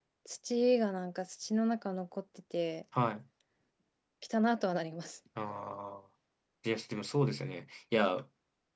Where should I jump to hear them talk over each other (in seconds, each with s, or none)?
none